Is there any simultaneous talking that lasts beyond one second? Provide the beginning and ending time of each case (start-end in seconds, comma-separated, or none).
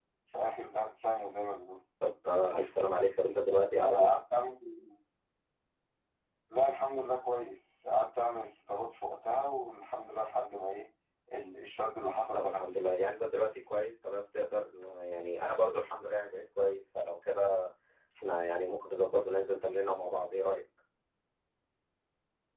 none